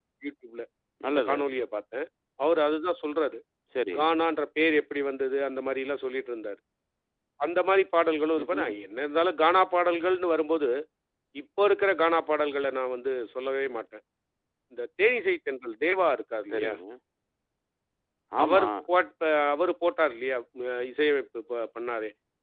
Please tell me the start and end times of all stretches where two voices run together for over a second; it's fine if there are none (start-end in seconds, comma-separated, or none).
none